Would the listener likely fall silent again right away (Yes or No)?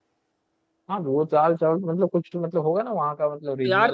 No